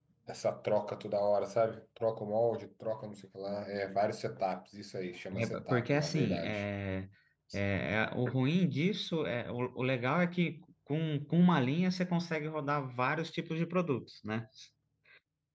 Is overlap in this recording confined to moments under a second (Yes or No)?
No